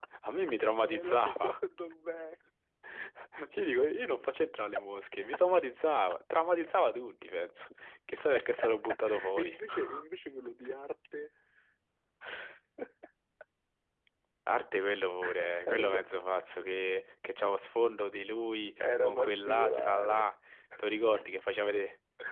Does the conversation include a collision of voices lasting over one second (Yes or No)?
Yes